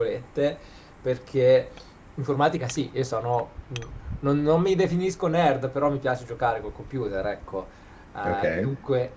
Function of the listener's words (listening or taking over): listening